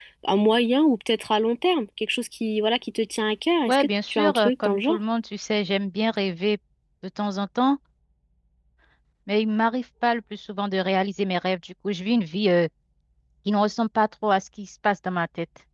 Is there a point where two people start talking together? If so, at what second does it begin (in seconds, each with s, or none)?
3.7 s